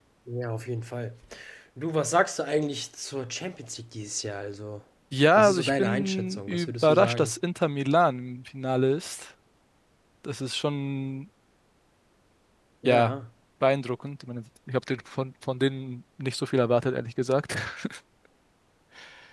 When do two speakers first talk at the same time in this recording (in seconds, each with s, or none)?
5.3 s